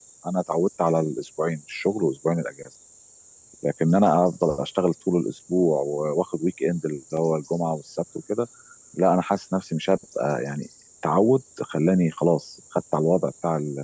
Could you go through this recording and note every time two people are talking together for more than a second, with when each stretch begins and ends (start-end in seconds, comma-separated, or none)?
none